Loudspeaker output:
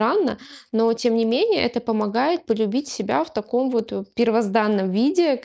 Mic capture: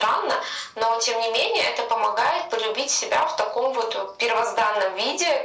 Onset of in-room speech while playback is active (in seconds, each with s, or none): none